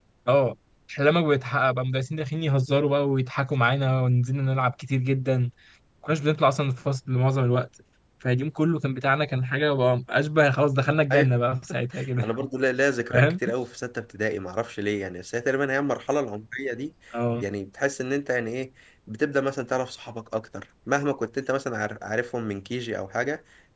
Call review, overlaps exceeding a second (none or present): none